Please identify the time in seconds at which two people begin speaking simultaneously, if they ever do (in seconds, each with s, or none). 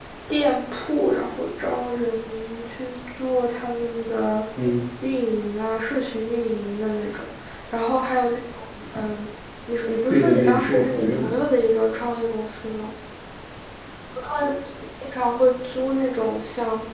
10.1 s